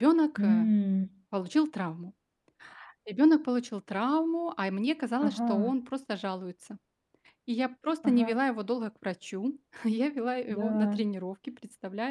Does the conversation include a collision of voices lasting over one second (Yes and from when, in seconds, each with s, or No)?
No